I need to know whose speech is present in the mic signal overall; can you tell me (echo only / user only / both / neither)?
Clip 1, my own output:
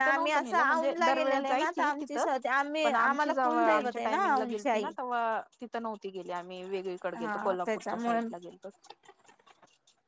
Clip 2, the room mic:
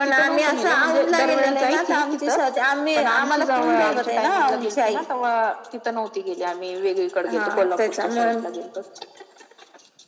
echo only